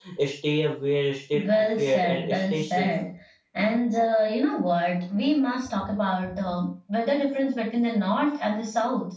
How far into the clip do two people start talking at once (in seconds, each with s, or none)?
1.3 s